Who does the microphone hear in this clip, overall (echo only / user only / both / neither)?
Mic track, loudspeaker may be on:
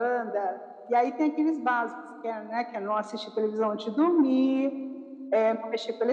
echo only